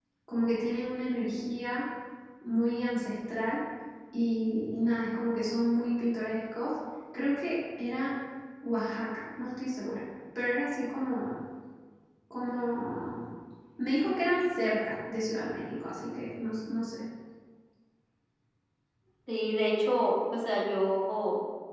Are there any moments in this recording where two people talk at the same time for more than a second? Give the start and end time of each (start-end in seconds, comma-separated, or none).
none